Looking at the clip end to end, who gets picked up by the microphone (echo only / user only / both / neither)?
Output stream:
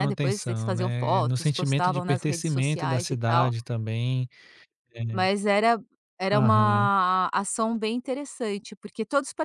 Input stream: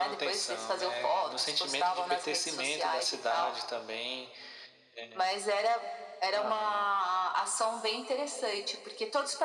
echo only